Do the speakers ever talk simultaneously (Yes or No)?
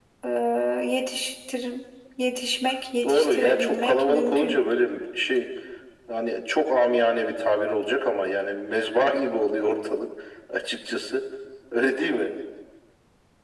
Yes